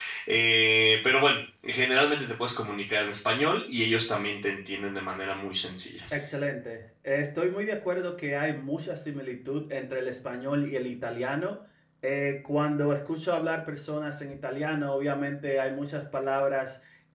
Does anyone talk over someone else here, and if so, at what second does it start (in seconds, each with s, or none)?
none